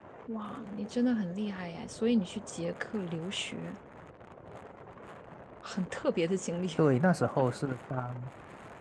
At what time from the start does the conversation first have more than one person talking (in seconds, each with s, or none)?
none